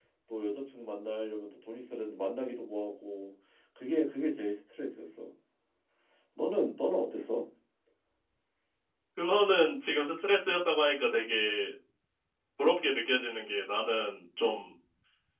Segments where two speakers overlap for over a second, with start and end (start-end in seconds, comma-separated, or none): none